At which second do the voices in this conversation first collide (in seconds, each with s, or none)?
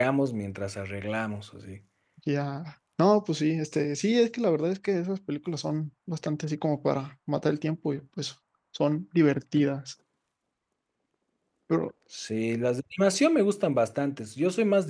none